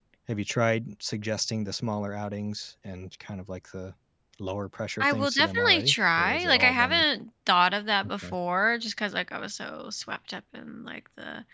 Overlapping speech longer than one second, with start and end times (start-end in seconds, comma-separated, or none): 5.0-7.0